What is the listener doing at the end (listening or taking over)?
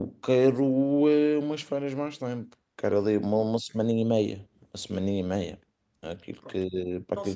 taking over